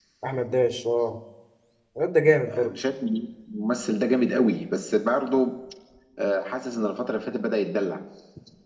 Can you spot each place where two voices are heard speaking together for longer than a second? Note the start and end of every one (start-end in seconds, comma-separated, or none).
none